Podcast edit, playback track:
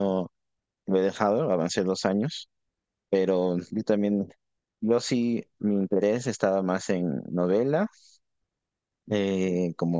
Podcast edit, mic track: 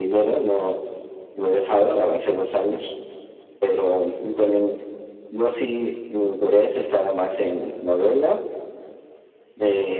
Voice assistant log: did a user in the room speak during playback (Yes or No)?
No